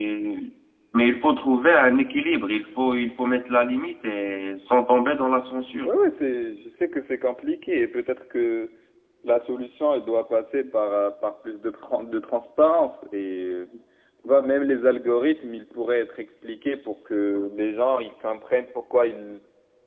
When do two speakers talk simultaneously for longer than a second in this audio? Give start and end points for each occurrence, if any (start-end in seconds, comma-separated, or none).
none